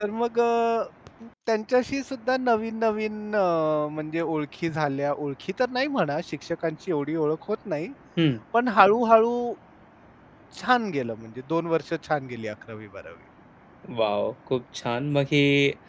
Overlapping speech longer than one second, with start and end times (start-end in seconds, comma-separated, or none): none